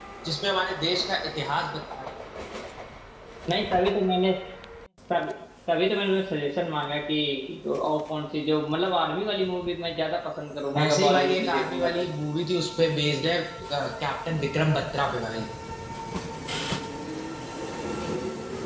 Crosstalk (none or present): present